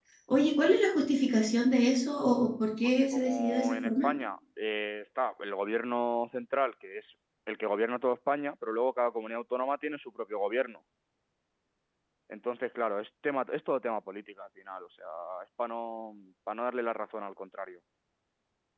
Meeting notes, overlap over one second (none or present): present